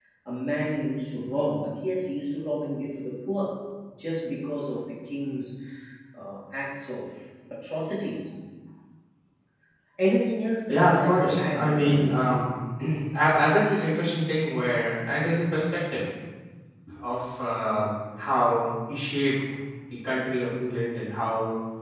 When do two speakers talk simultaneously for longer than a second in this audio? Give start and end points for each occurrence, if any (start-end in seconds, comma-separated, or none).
10.7-12.3